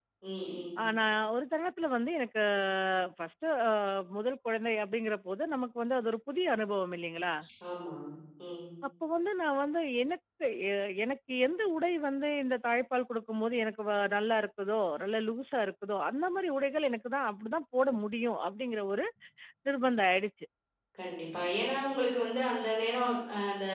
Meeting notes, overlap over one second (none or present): none